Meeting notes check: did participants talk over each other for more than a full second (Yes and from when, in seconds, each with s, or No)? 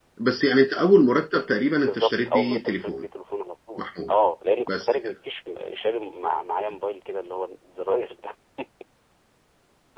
Yes, from 1.9 s